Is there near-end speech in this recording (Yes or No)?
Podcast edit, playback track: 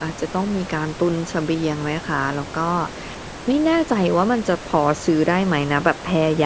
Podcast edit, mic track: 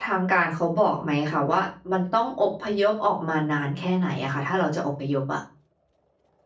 Yes